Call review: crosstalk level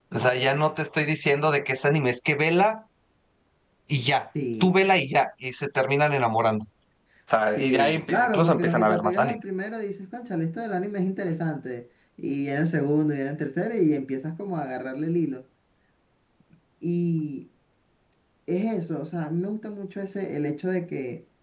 present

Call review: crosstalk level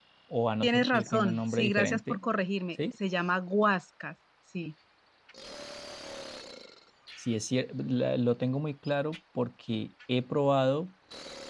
present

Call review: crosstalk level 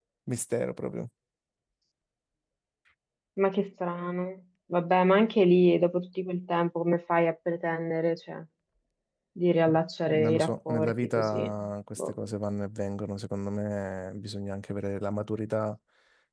present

